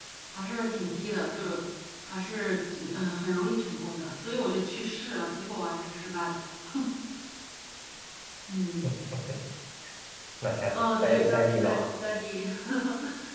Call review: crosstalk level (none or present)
present